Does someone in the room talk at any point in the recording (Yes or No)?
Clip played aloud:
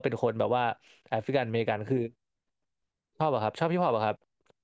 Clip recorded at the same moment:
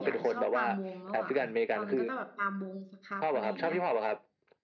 Yes